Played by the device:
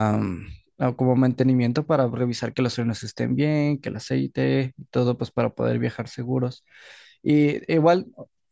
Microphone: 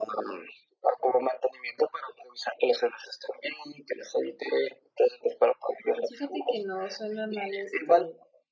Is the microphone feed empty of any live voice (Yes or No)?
No